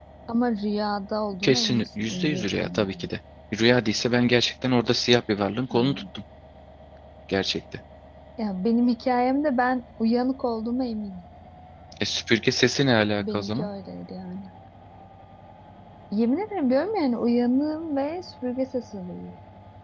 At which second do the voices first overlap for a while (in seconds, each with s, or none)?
1.4 s